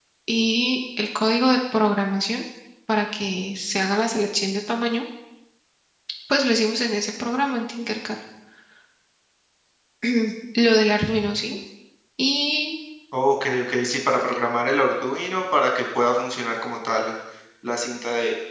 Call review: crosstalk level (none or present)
none